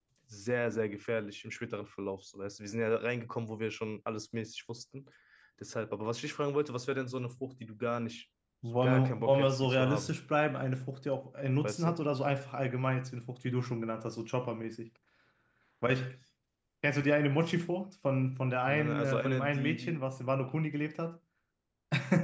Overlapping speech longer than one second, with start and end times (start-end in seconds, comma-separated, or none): 8.7-10.1, 18.7-20.0